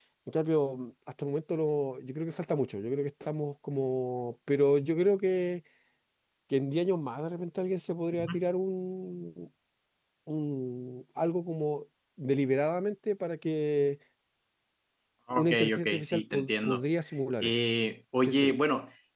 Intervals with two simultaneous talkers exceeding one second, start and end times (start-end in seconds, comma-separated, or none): 15.3-16.8